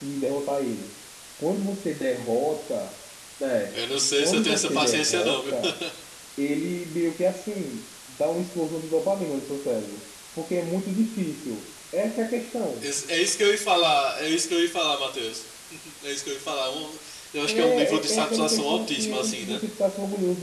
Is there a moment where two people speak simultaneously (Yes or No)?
Yes